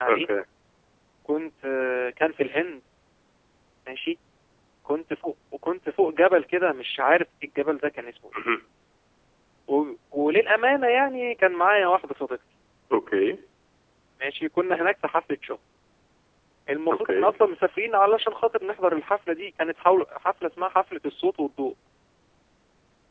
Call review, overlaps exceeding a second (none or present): none